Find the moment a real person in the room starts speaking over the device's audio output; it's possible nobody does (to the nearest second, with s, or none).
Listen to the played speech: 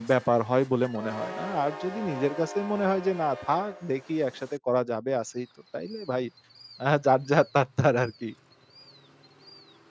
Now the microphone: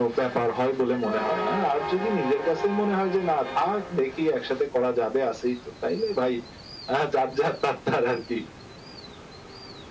none